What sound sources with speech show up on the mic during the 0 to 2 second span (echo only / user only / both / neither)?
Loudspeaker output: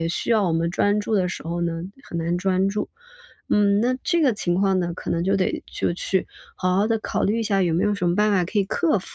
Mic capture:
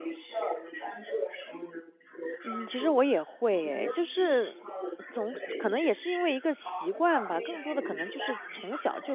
echo only